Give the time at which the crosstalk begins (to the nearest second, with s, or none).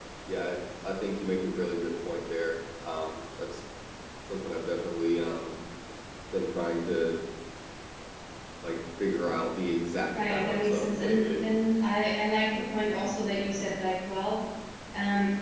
10 s